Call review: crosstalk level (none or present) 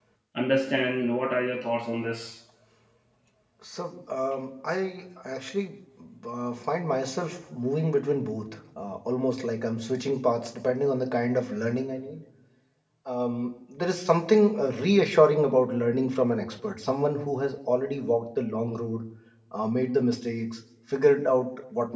none